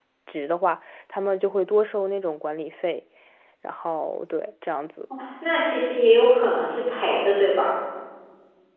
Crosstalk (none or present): none